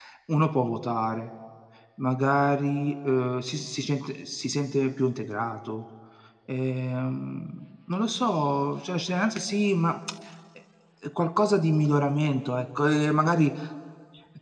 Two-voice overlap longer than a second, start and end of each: none

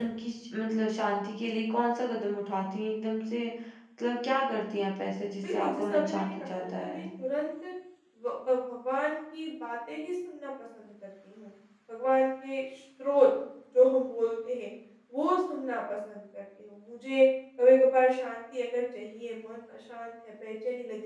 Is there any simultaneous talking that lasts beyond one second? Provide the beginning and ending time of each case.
5.5-7.1

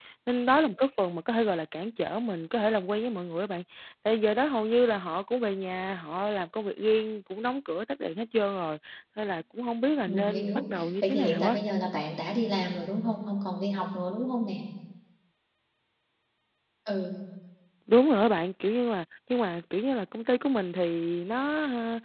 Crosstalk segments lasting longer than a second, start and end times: 10.1-11.6

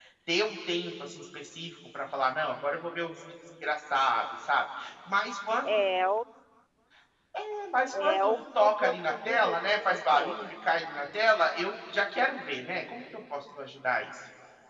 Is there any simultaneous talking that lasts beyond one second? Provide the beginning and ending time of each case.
8.0-10.4

